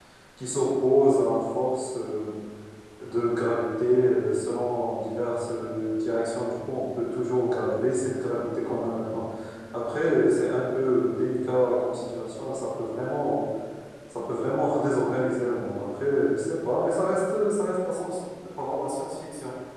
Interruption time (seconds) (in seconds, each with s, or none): none